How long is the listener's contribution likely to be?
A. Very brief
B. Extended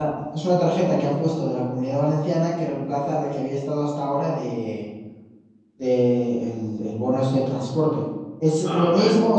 A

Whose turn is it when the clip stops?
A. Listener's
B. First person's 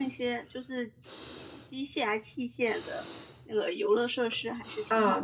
A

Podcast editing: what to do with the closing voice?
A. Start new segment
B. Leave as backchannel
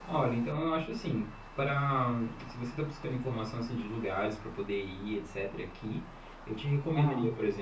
B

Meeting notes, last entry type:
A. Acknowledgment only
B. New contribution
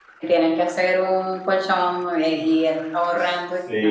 B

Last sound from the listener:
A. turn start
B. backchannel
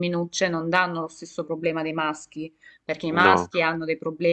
B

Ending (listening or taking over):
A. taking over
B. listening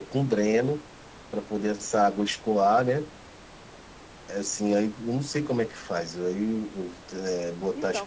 A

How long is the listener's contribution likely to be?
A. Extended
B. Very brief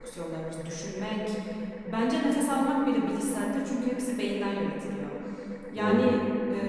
B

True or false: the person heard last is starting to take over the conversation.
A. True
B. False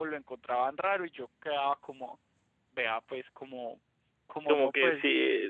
A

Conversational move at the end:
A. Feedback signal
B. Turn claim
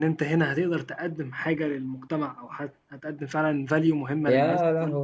B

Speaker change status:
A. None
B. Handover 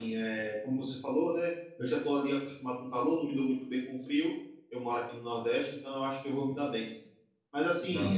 A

